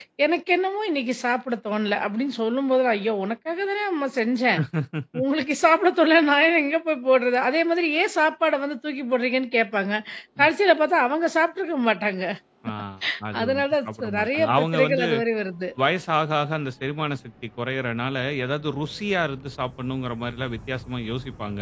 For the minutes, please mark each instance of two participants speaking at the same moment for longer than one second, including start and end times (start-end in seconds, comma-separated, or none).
13.4-15.1